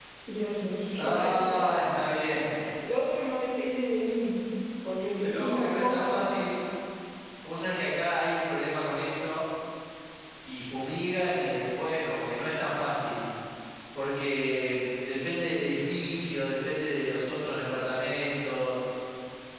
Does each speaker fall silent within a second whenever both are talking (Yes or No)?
No